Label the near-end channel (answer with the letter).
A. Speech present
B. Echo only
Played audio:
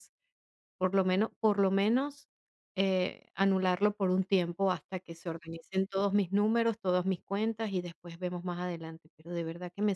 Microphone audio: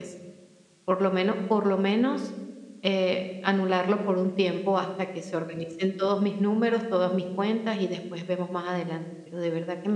B